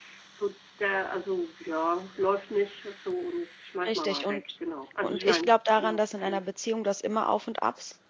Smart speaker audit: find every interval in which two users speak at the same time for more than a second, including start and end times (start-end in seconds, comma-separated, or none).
5.0-6.4